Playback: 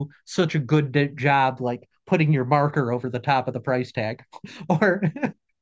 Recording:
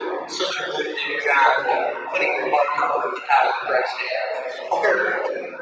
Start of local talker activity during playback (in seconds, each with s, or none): none